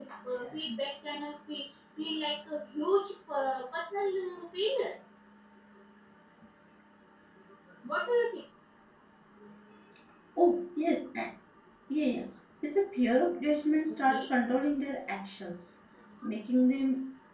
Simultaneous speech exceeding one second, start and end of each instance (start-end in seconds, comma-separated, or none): none